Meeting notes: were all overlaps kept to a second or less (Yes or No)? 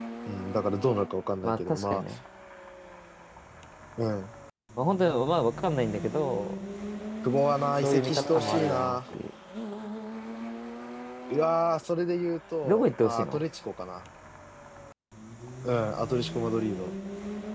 No